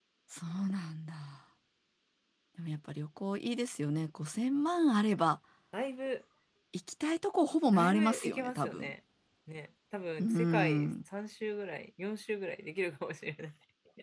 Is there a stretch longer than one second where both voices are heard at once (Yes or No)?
Yes